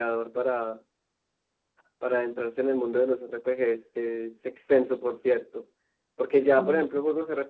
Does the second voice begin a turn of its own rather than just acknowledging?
No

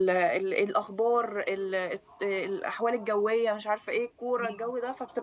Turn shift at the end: No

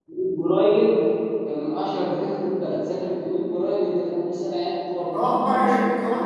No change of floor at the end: No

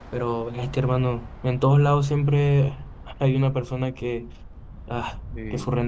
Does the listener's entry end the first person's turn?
No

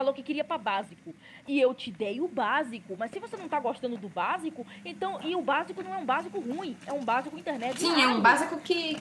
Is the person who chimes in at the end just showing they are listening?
No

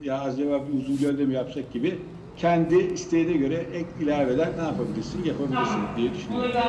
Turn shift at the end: Yes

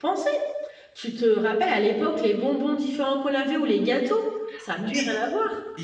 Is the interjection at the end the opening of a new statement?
Yes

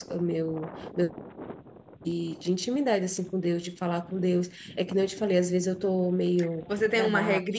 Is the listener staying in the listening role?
No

